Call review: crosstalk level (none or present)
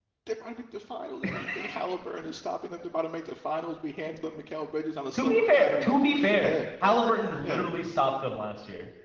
present